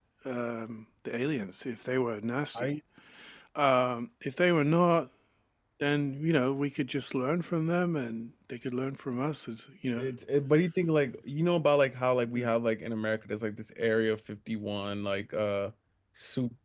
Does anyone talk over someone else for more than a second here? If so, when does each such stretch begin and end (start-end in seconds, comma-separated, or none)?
none